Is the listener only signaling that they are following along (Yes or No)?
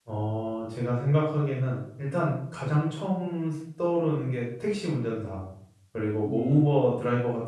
Yes